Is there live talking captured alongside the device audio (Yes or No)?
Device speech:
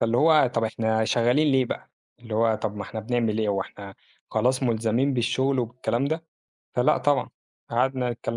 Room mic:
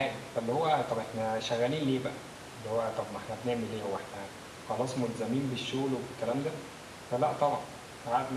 No